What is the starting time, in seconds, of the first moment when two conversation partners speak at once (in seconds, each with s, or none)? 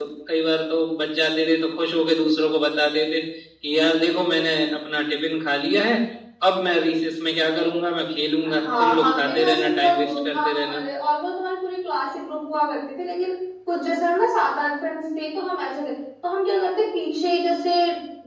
8.4 s